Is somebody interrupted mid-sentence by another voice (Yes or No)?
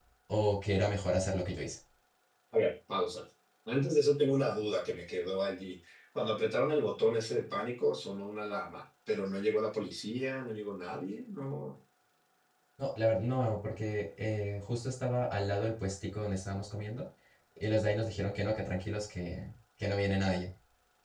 No